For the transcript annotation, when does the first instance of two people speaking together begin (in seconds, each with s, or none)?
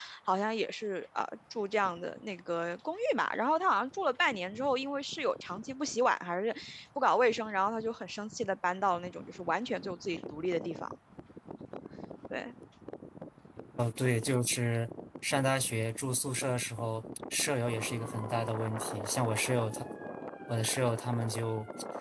none